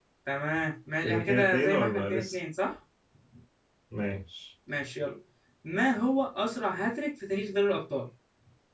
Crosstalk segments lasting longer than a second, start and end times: 1.0-2.4

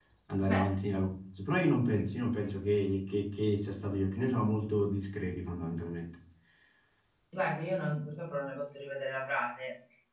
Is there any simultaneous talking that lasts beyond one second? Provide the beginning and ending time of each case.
none

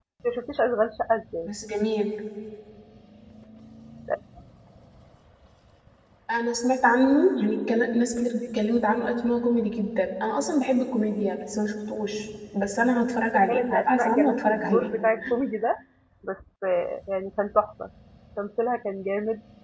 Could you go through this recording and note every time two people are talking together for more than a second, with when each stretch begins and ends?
13.5-14.9

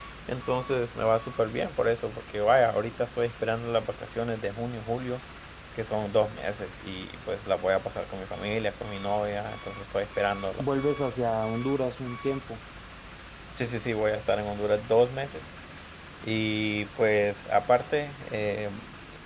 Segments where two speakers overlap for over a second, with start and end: none

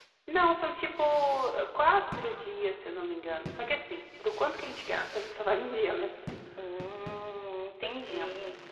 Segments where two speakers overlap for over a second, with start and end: none

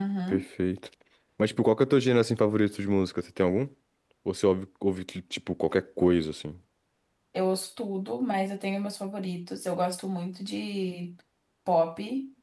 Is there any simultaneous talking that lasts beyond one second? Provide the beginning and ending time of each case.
none

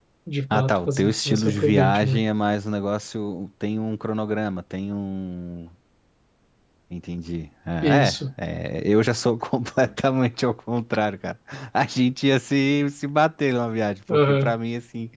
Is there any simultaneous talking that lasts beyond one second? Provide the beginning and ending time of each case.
0.5-2.2

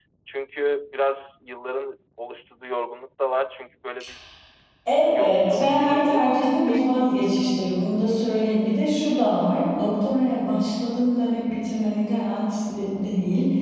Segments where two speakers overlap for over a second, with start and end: 5.0-6.3

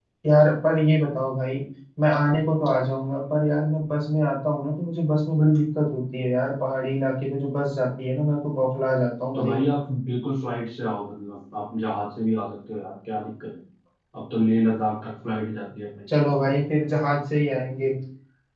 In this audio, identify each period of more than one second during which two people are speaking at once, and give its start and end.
none

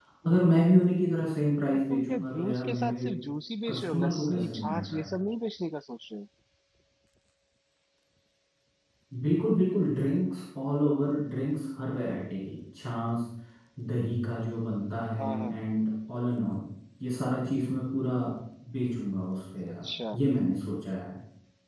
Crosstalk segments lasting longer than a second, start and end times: 1.7-3.0, 3.7-5.1

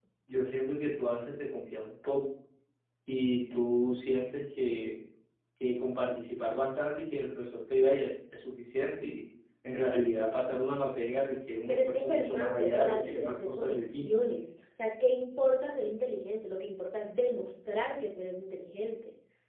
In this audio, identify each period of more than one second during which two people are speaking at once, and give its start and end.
11.7-14.0

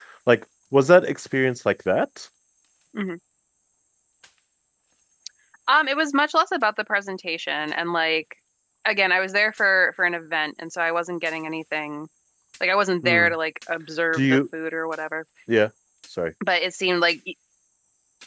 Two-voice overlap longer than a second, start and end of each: none

